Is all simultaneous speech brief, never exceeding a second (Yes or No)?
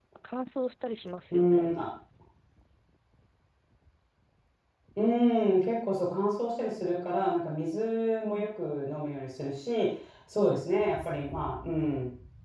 Yes